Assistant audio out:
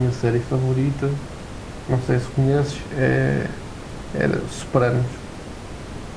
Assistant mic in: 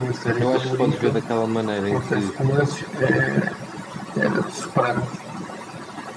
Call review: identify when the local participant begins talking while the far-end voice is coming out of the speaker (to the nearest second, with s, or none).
0 s